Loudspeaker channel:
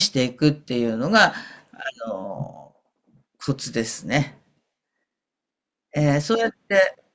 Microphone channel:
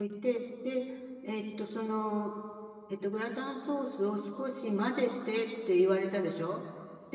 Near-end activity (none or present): present